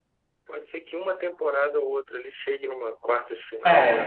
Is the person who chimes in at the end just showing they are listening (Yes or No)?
Yes